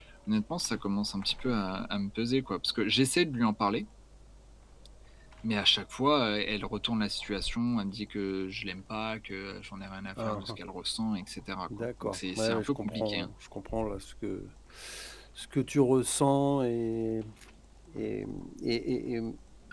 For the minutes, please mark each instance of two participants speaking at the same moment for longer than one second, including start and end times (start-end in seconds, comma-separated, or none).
11.8-13.3